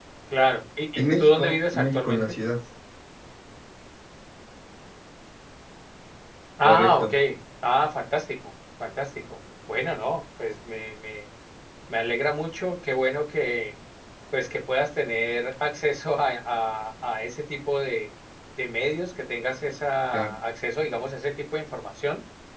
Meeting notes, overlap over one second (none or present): present